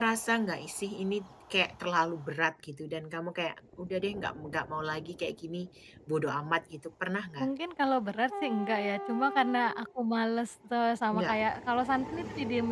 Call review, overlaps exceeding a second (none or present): none